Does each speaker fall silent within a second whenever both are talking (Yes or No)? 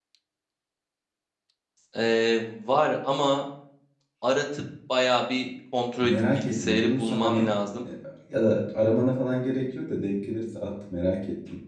No